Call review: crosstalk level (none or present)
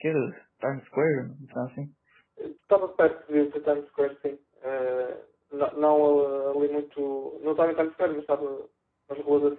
none